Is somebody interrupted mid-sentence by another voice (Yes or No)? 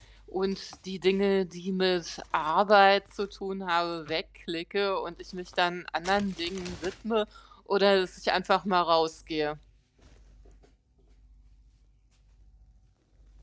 No